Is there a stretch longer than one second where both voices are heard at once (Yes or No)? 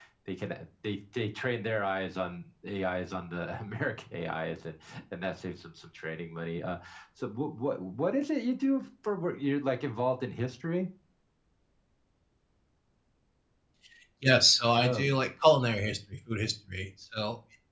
No